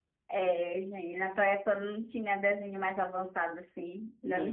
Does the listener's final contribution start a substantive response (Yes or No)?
No